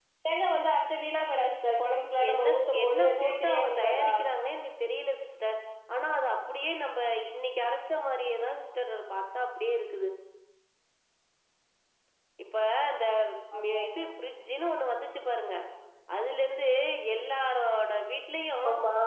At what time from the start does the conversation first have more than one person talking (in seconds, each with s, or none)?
2.3 s